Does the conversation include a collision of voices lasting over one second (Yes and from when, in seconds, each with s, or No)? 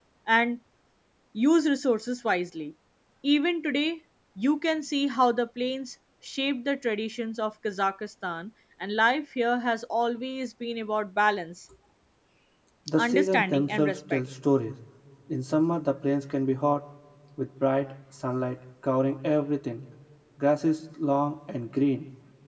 Yes, from 13.0 s